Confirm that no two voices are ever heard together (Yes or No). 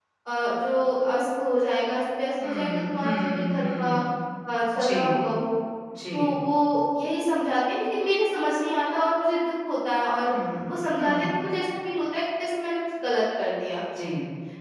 No